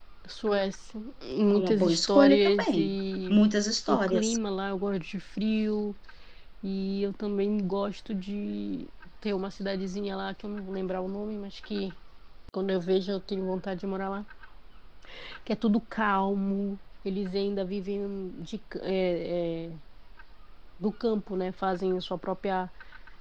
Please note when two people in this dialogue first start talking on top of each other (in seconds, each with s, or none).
1.5 s